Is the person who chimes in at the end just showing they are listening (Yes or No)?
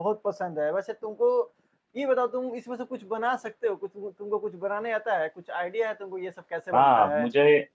No